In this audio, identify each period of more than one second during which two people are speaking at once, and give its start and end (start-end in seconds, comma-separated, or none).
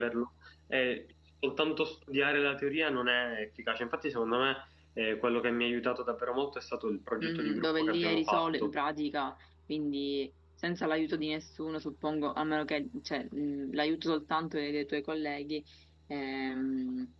7.2-8.7